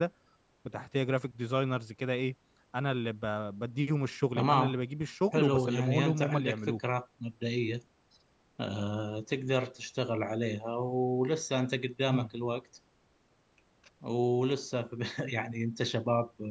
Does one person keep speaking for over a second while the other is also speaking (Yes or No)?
Yes